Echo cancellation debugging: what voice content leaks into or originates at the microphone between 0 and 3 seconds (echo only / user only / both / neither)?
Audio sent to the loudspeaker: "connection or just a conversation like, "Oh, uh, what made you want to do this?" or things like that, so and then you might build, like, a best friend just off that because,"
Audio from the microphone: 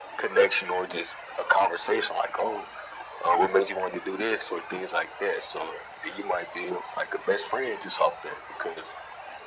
echo only